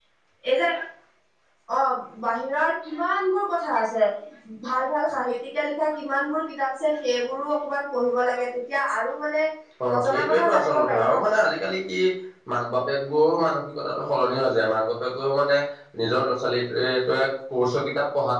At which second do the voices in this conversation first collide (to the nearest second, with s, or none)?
10 s